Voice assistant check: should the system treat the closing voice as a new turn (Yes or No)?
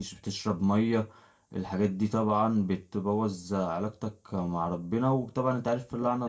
No